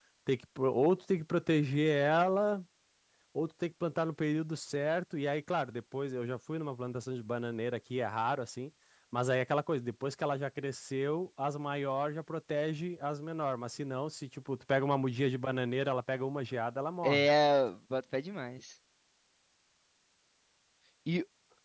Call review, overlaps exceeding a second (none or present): none